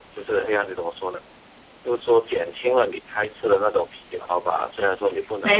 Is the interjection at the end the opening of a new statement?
No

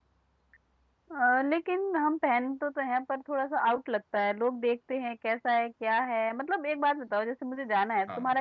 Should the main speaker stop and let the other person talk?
No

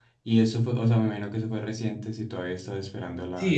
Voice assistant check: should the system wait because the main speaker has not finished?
No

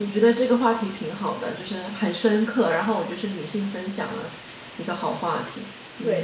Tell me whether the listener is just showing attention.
No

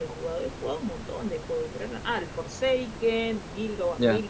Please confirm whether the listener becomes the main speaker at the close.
No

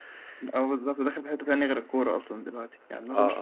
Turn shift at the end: Yes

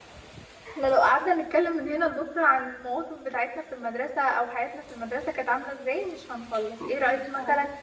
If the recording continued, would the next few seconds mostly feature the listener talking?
No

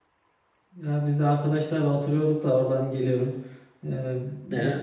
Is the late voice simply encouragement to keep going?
Yes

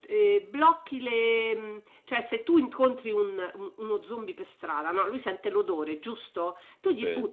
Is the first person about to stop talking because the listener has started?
No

